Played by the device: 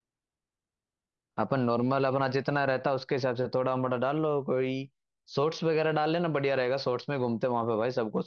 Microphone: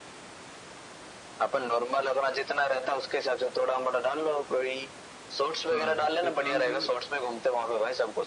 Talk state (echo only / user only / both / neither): both